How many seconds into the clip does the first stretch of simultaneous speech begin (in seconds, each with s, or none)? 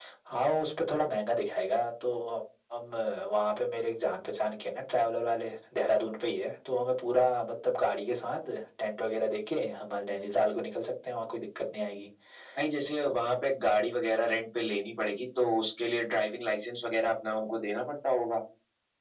none